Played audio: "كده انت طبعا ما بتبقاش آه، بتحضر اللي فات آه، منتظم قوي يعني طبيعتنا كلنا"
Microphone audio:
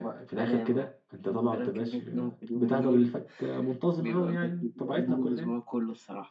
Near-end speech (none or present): present